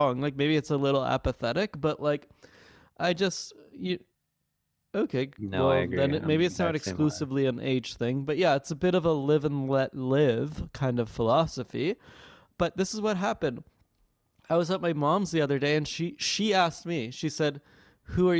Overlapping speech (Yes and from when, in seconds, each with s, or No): Yes, from 5.5 s